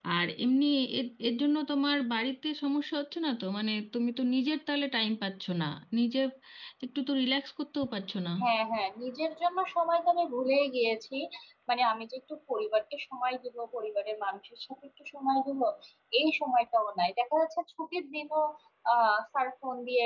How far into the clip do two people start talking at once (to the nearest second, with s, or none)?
none